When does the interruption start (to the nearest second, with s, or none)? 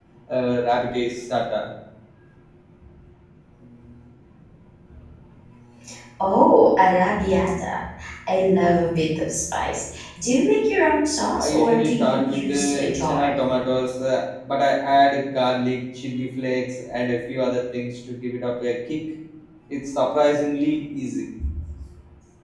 11 s